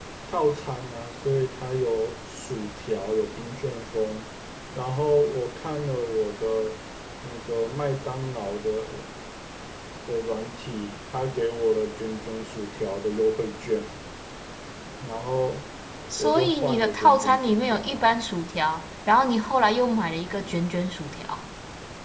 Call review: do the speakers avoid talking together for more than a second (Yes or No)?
No